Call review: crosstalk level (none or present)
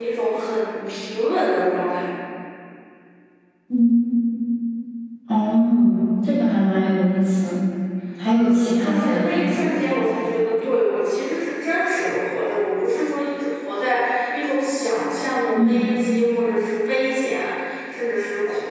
present